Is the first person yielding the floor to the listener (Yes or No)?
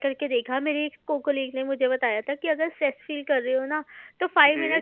No